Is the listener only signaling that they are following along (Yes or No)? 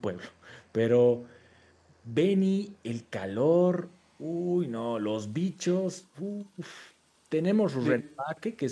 Yes